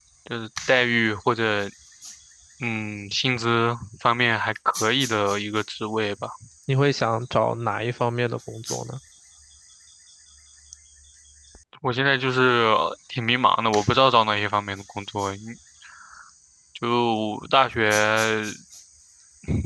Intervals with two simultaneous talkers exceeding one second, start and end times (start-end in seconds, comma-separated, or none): none